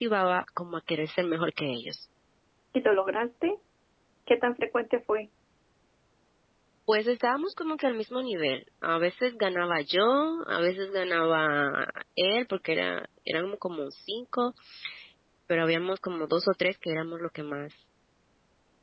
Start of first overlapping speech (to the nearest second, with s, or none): none